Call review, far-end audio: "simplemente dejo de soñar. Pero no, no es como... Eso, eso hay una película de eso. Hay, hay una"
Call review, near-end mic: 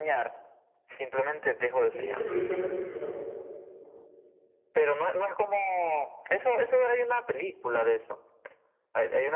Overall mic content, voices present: both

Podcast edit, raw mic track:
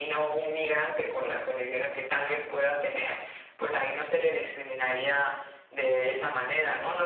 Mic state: echo only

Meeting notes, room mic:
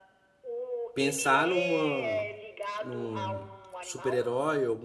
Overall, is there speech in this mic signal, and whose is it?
both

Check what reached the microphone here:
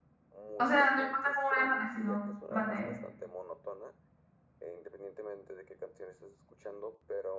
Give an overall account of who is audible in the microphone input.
both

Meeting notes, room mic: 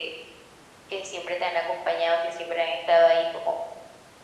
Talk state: echo only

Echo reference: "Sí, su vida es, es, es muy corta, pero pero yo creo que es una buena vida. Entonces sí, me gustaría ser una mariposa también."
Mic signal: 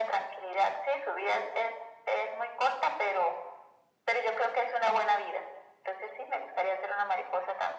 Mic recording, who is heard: echo only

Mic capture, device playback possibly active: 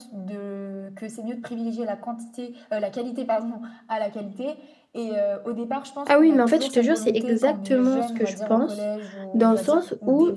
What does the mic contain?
both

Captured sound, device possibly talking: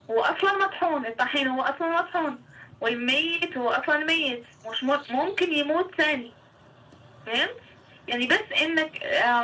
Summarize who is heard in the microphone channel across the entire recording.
echo only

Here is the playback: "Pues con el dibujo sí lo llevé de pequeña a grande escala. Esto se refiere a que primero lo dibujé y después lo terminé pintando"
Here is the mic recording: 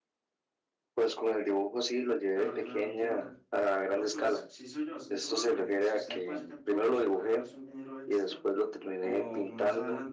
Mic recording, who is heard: both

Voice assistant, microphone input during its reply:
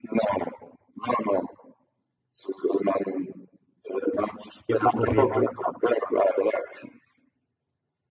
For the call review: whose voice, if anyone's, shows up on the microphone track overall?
both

